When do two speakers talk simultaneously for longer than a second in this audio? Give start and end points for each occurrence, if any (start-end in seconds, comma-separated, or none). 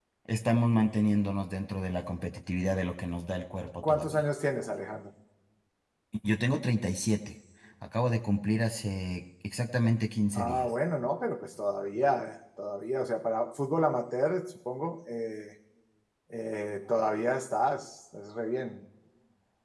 none